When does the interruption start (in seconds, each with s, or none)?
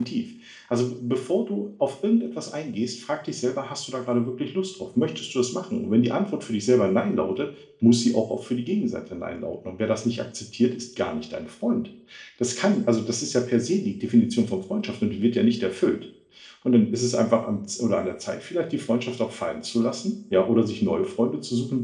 none